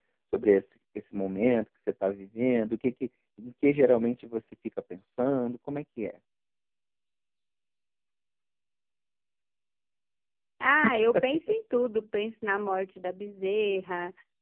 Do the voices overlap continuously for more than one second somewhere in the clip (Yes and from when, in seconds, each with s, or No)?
No